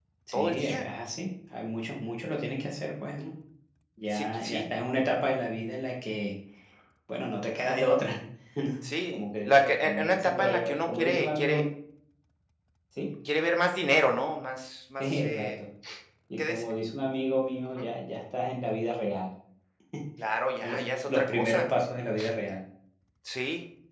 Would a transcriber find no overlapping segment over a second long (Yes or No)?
No